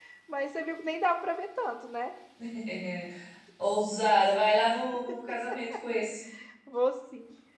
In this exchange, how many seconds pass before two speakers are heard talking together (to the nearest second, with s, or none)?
none